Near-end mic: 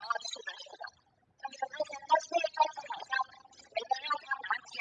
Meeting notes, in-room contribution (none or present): none